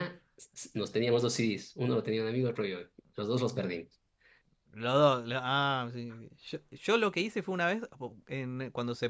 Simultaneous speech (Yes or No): No